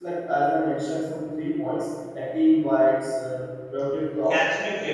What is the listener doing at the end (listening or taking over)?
taking over